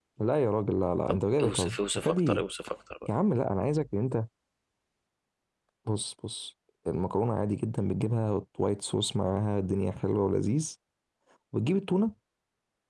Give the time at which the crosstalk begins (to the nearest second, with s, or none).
1 s